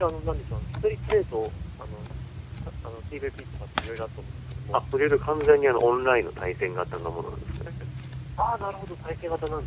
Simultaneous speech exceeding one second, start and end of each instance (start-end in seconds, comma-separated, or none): none